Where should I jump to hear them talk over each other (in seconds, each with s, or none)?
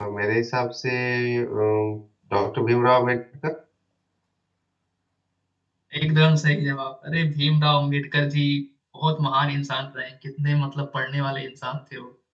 none